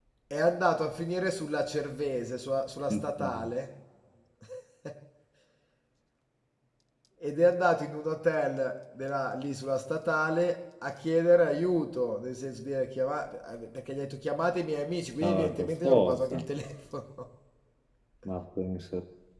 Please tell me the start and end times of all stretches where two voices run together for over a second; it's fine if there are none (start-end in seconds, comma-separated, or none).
15.2-16.4